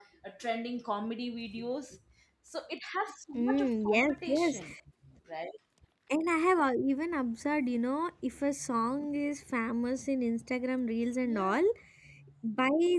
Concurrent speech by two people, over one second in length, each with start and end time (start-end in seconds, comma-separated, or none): 3.3-4.6